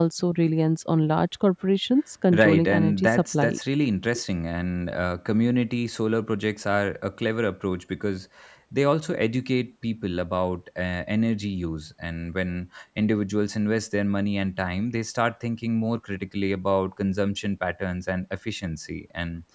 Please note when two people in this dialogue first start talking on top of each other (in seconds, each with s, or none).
2.3 s